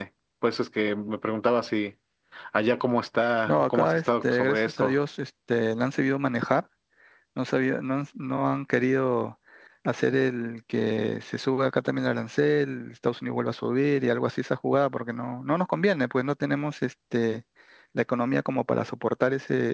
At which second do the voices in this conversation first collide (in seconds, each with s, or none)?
3.2 s